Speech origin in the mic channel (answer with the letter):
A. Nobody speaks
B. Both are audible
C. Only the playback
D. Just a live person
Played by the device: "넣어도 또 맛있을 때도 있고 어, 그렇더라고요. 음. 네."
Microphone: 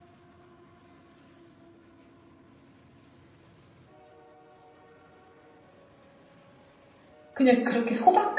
D